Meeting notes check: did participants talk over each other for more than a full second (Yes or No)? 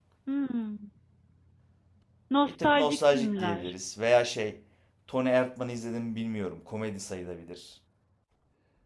Yes